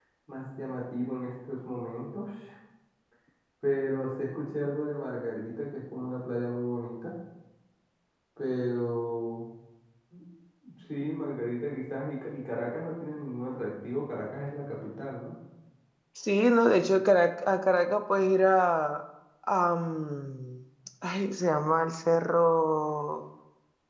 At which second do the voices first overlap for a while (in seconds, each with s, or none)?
none